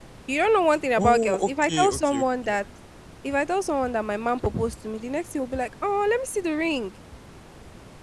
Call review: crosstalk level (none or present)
present